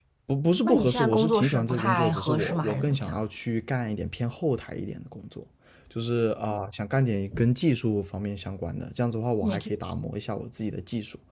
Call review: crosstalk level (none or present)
present